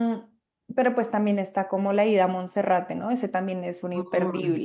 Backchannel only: No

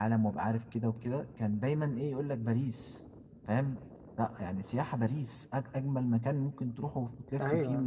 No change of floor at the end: No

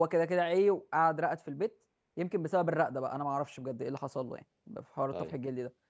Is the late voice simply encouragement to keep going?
Yes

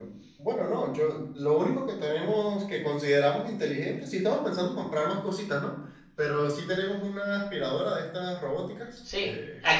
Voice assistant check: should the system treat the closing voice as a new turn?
Yes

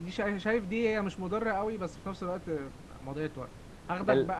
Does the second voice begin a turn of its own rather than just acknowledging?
No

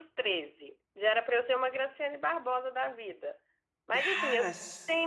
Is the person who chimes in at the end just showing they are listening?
Yes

